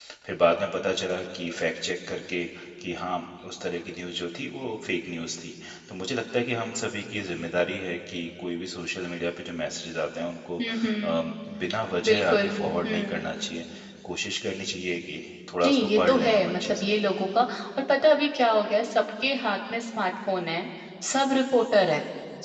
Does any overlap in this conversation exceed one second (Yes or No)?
Yes